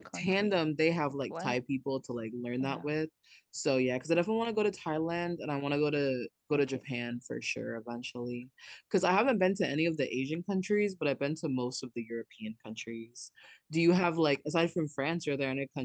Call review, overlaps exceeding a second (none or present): none